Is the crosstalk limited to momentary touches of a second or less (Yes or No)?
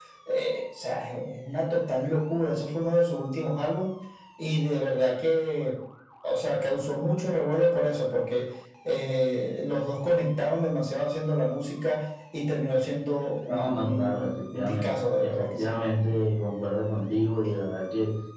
No